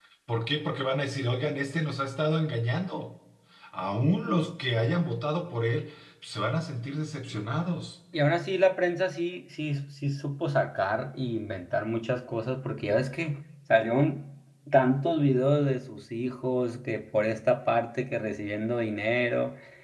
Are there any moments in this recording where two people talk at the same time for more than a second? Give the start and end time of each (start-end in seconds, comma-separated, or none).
none